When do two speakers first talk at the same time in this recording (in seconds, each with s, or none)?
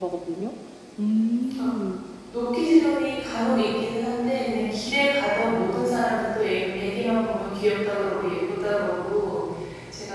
none